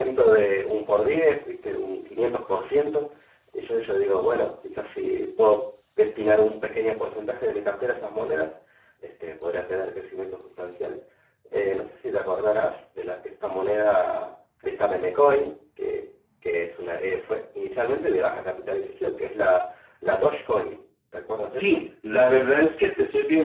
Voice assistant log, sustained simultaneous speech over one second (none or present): none